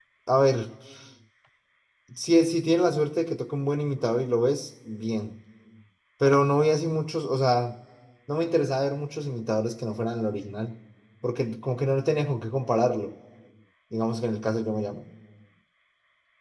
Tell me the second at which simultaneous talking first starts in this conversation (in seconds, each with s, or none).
none